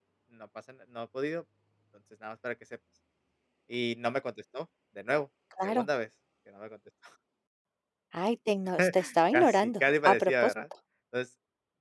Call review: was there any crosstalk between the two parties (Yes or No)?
Yes